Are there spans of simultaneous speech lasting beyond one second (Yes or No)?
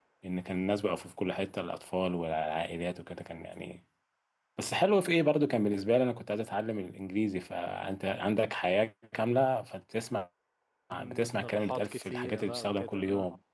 Yes